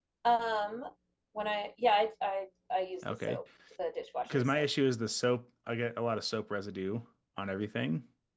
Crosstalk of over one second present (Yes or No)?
No